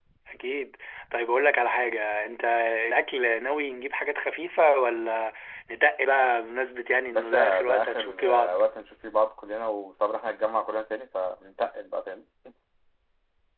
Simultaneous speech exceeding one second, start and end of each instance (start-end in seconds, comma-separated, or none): 7.1-8.6